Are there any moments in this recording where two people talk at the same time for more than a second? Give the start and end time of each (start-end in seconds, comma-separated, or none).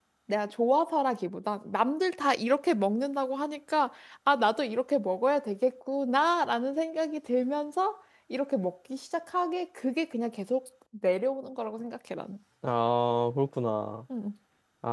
none